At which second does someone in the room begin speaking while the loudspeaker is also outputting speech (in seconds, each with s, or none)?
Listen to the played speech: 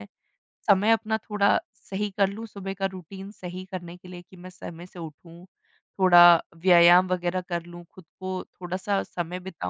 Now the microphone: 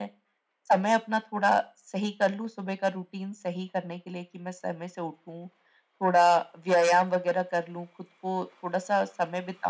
none